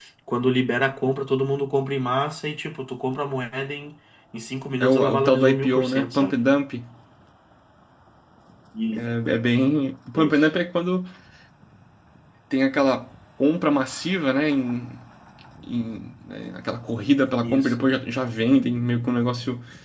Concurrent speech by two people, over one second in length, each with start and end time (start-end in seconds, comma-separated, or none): 4.8-6.4